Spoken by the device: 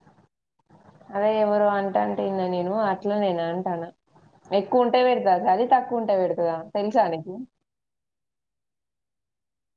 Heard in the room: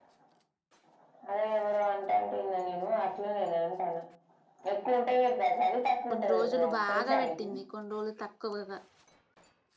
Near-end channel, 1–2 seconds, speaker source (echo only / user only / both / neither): echo only